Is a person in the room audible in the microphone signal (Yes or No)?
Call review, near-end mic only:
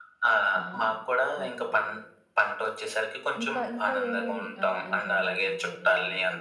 Yes